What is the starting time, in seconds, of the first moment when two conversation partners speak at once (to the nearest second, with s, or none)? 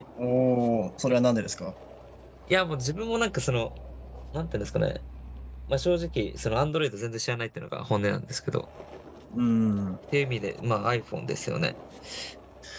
none